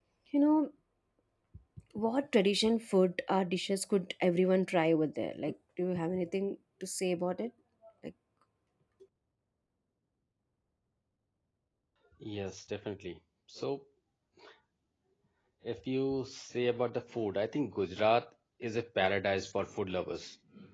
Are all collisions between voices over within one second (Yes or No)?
Yes